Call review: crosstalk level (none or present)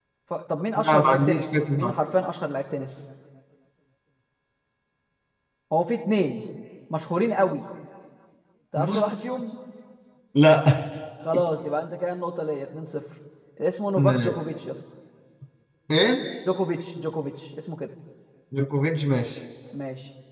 present